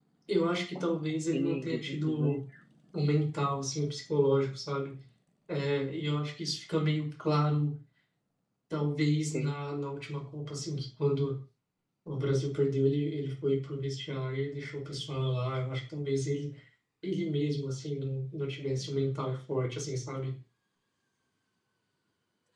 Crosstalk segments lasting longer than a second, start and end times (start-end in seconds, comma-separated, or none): 1.1-2.4